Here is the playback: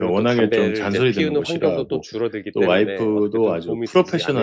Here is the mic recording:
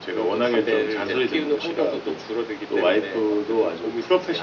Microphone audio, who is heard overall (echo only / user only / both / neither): echo only